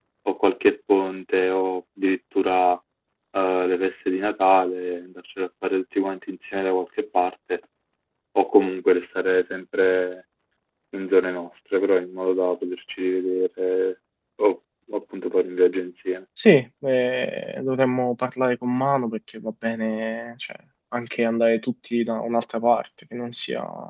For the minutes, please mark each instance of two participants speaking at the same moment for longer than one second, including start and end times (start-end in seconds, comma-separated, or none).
none